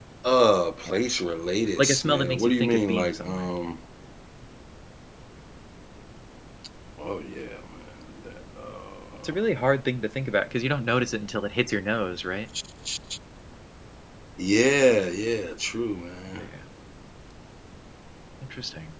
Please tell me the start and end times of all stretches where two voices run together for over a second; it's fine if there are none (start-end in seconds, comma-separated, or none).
1.8-3.5